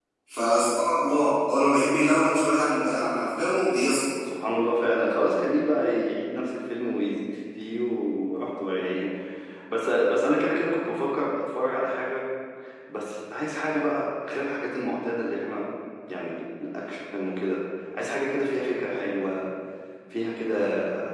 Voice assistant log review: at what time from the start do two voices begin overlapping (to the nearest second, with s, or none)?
none